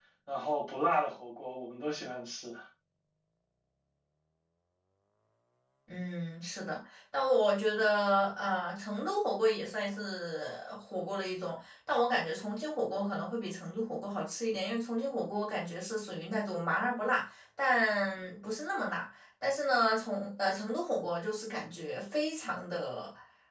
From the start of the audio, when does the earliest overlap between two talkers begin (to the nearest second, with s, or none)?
none